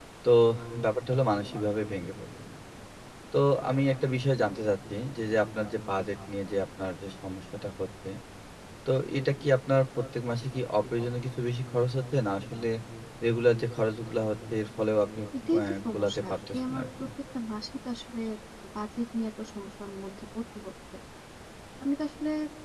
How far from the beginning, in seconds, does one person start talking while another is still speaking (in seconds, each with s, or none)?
15.6 s